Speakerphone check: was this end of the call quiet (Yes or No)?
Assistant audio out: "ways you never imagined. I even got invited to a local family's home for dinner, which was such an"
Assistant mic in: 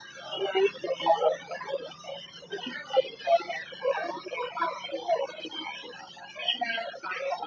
Yes